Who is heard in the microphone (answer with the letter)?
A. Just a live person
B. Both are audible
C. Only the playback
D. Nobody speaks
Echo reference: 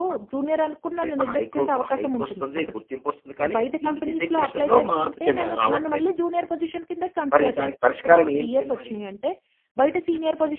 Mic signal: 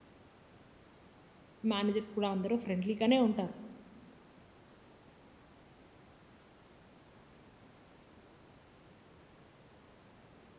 A